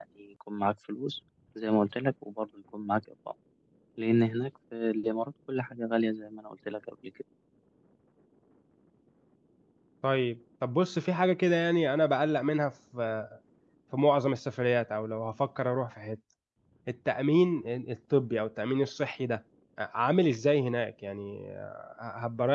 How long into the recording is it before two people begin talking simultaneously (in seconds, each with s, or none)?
none